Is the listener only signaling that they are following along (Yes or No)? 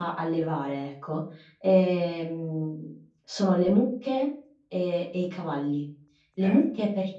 Yes